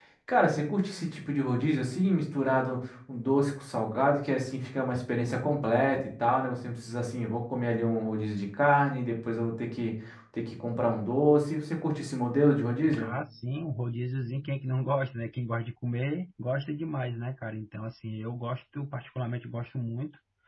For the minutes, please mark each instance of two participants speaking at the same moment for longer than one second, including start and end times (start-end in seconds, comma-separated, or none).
none